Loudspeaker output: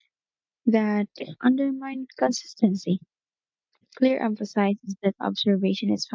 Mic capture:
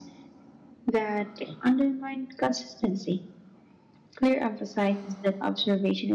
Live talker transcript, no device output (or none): none